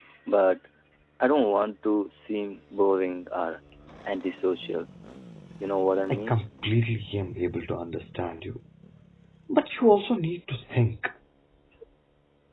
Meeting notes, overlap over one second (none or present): none